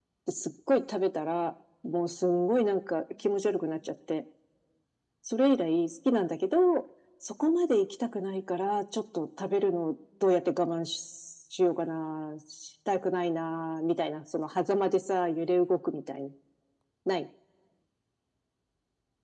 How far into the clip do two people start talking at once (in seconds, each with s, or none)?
none